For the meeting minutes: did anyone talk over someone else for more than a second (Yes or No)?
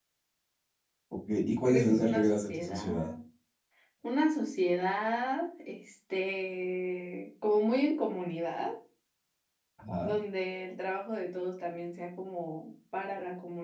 Yes